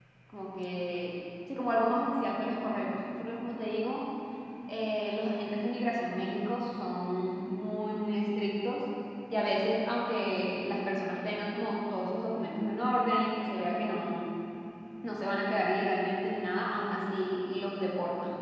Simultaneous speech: No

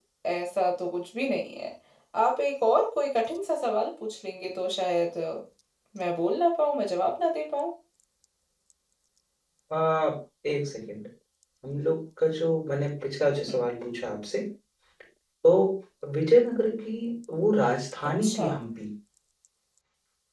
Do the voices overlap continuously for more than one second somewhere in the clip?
No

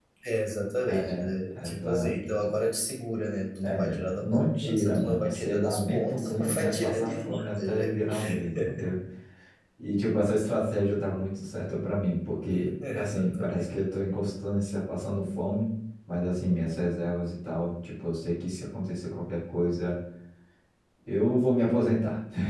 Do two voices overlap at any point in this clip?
Yes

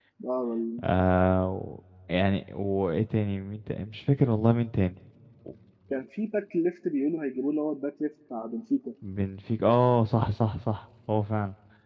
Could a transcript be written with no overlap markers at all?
Yes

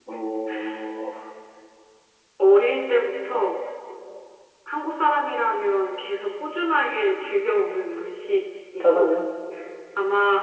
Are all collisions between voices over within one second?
Yes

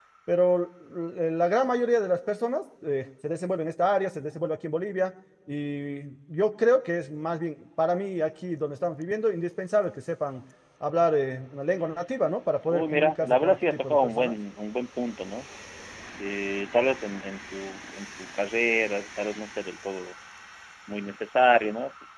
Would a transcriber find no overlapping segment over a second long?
No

